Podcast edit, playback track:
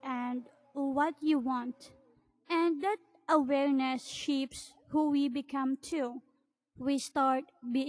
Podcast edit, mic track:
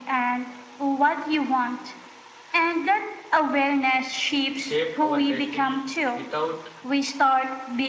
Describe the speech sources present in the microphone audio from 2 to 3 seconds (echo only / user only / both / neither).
echo only